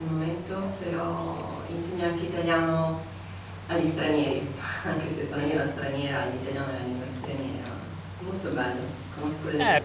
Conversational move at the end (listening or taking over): taking over